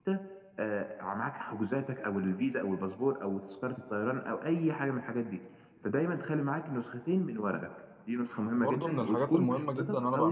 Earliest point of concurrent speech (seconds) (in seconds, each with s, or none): 8.6 s